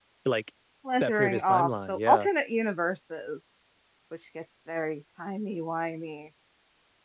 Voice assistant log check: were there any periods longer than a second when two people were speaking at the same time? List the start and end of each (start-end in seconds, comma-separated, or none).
1.0-2.3